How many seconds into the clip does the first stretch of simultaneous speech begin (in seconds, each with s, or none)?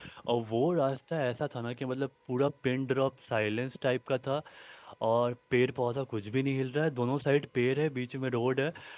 none